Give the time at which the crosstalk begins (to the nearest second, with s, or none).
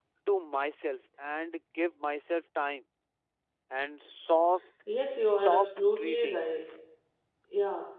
5 s